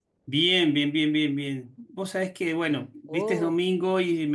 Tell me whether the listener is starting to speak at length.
No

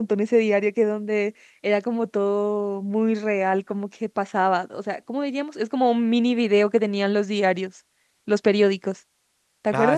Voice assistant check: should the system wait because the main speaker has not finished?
No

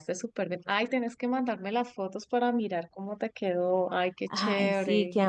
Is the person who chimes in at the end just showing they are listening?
No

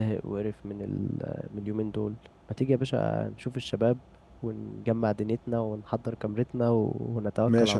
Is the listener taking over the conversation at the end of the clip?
Yes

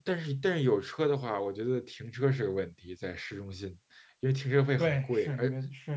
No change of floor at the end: No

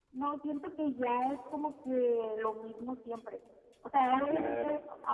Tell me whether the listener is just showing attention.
Yes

